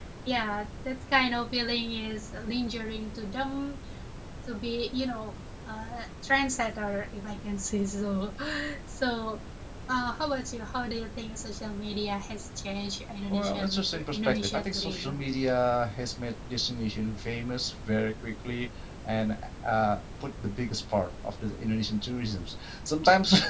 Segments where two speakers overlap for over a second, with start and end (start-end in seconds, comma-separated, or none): 13.3-15.3